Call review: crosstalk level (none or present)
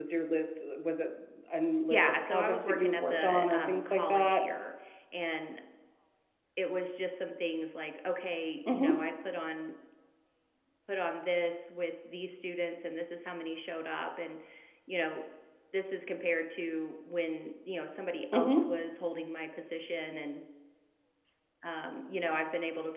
present